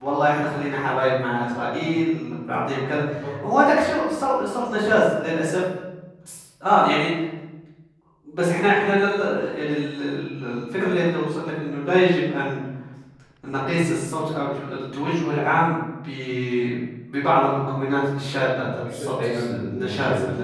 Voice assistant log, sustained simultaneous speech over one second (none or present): present